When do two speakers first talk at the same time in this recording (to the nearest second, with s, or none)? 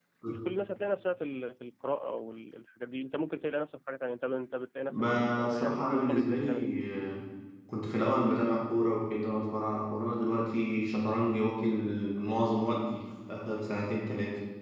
5 s